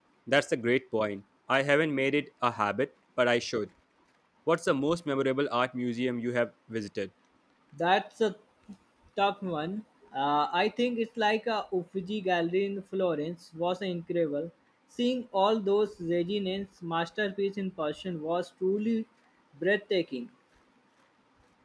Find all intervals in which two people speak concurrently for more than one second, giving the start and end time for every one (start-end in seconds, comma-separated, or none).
none